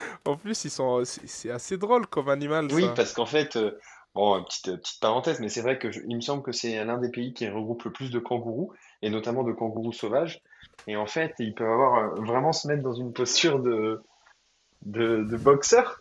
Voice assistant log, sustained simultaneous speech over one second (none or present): none